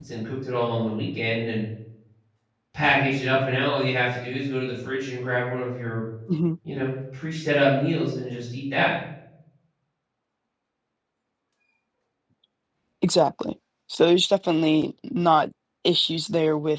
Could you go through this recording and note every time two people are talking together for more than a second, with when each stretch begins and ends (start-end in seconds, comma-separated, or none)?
none